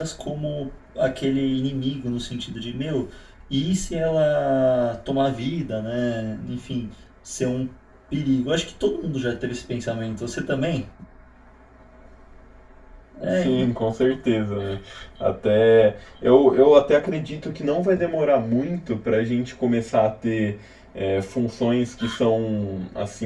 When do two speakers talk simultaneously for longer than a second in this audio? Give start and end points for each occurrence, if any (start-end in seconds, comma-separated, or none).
none